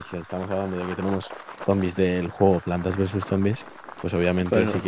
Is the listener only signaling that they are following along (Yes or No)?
Yes